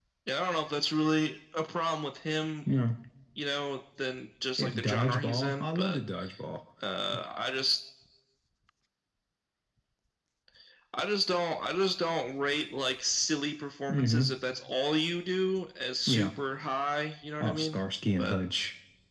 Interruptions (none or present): present